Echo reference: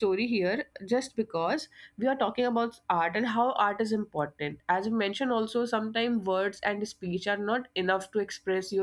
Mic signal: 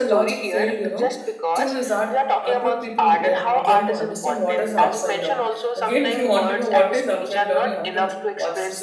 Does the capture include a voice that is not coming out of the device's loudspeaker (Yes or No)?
Yes